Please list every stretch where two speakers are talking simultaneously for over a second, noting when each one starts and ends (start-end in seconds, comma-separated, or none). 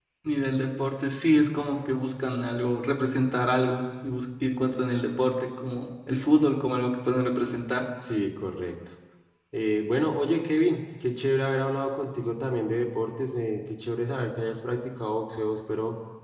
none